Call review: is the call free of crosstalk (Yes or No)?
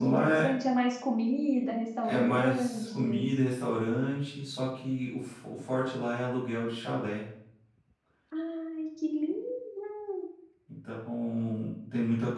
No